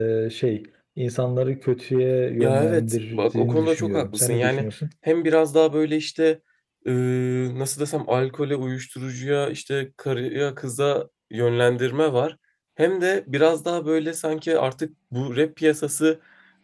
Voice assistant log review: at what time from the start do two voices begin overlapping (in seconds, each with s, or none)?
2.4 s